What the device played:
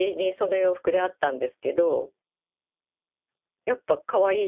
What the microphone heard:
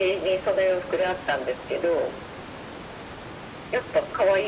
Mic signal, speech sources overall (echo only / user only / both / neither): echo only